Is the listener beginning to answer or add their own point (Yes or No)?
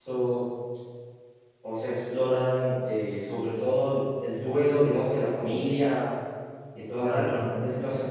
No